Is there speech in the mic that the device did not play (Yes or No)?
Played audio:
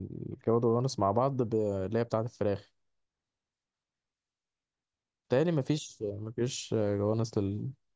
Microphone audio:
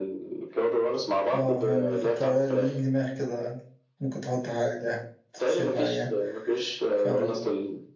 Yes